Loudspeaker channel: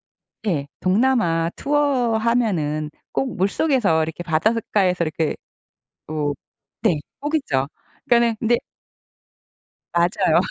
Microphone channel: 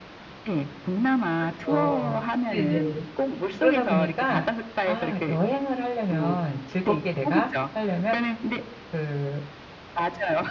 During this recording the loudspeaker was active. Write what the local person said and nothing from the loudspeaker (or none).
그렇죠. 네네. 그러다 보니까 '아 여행을 하려면 즐겁게 내가 하려면 그